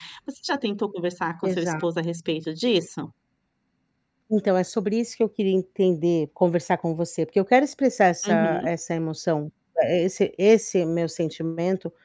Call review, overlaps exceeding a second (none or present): none